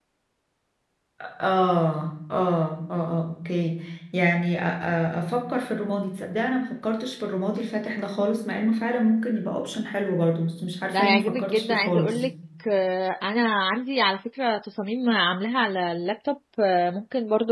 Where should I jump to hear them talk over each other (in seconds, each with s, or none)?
10.9 s